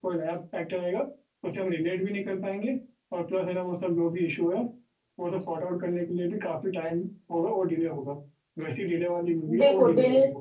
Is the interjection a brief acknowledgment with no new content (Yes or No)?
No